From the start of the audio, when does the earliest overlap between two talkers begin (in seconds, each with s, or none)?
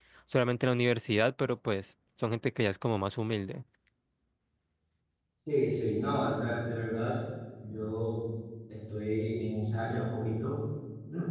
none